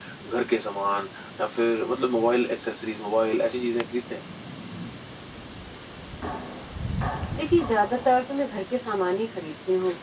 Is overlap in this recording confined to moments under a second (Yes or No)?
Yes